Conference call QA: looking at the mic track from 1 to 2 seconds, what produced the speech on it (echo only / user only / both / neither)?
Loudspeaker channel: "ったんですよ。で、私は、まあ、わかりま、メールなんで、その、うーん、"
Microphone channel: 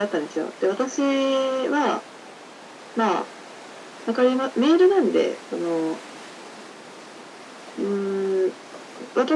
echo only